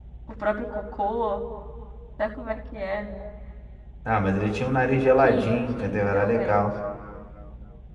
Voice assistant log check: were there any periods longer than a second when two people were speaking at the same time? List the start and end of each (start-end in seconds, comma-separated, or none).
5.2-6.6